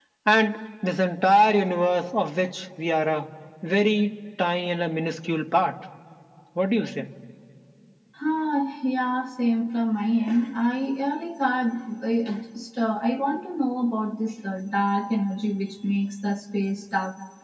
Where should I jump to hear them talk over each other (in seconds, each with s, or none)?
none